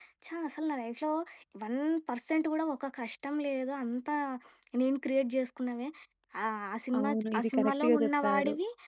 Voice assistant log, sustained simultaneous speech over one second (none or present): present